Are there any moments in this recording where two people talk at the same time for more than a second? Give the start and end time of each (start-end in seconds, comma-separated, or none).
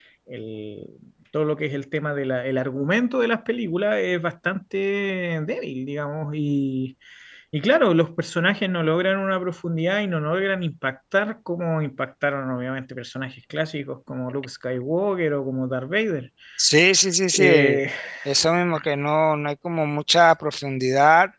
none